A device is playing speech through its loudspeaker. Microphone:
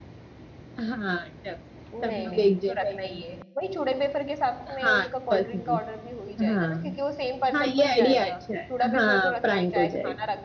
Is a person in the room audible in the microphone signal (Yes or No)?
Yes